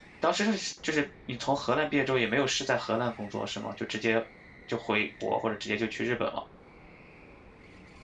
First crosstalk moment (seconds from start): none

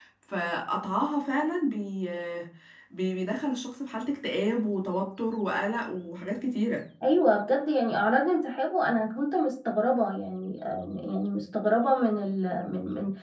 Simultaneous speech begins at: none

